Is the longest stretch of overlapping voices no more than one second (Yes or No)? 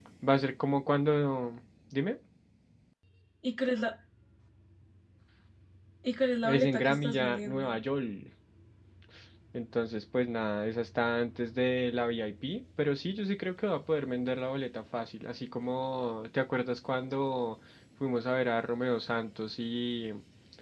No